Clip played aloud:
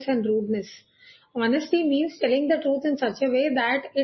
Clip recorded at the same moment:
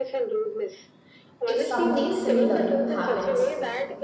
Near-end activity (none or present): present